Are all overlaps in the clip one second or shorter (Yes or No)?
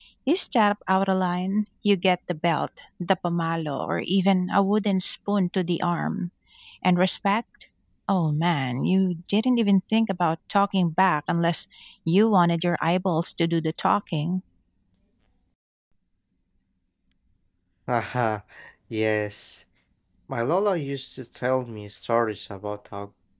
Yes